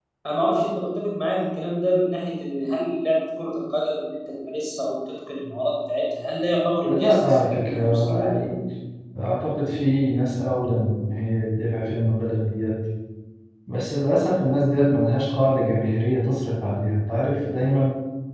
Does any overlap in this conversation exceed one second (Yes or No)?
Yes